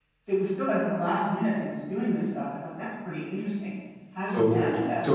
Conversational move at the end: taking over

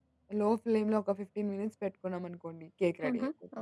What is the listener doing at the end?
taking over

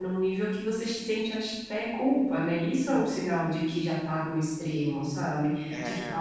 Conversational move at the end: listening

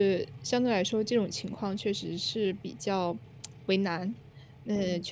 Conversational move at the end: listening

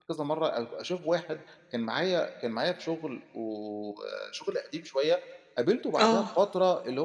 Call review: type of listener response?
listening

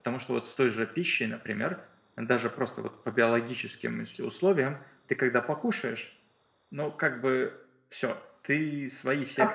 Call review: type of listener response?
taking over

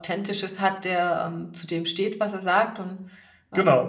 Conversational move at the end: taking over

